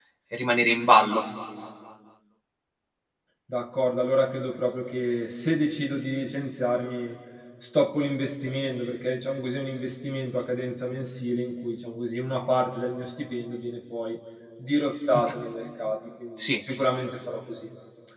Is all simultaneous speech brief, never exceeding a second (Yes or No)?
Yes